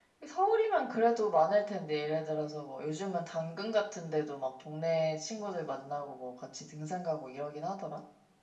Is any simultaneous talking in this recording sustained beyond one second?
No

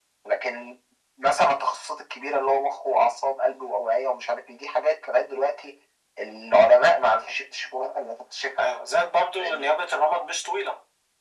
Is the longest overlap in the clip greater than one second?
No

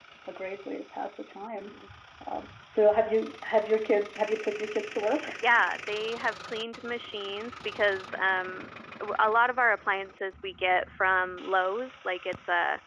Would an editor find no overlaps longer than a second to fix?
Yes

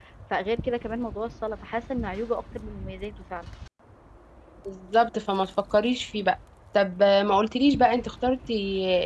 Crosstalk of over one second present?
No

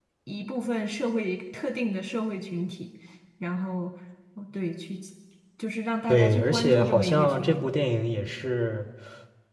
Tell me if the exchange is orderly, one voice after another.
No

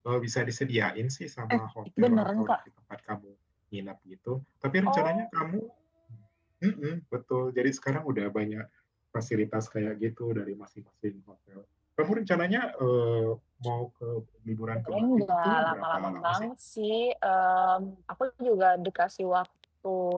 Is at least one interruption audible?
Yes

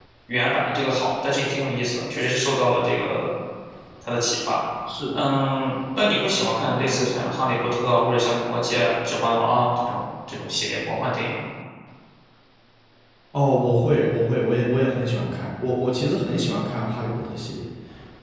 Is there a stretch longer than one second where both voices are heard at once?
No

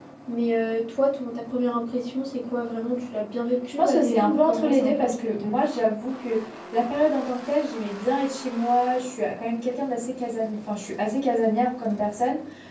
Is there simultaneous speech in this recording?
Yes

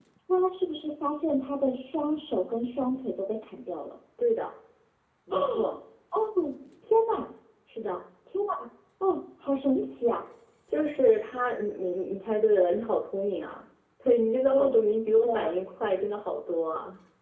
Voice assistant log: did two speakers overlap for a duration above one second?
No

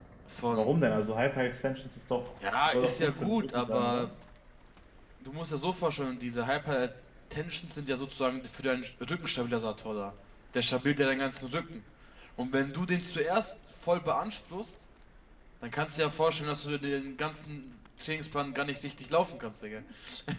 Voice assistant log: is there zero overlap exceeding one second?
No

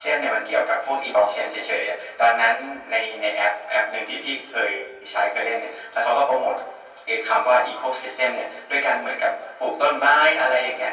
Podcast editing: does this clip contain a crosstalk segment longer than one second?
No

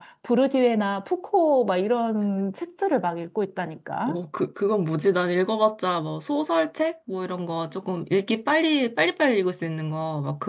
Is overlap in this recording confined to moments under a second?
Yes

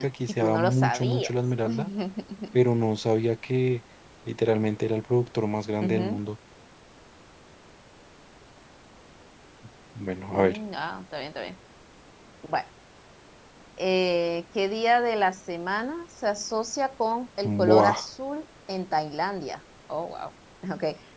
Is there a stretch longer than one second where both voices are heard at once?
Yes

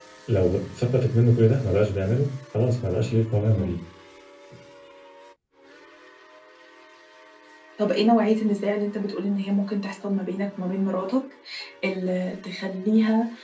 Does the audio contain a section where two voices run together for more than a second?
No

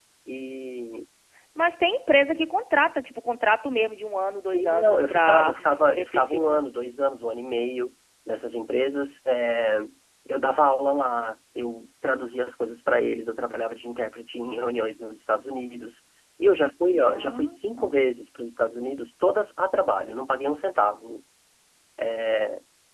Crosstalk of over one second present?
Yes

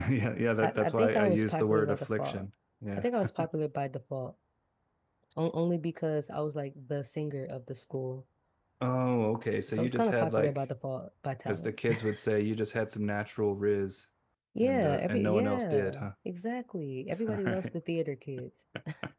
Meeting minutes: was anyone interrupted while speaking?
Yes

